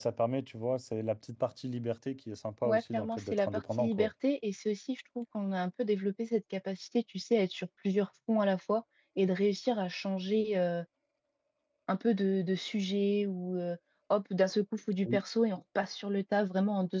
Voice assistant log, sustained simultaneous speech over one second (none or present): present